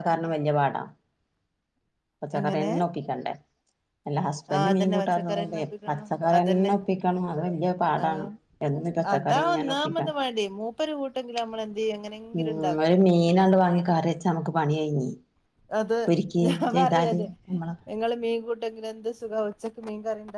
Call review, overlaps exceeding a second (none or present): present